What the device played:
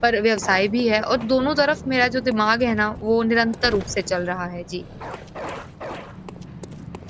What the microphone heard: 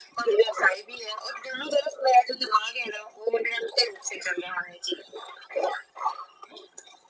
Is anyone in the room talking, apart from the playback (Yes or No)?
No